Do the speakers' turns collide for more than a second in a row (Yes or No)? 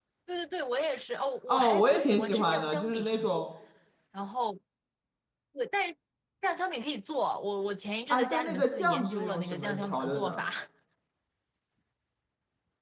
Yes